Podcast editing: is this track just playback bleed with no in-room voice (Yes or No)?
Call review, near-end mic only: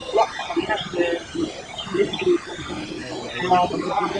No